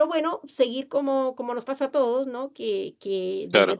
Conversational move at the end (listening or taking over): listening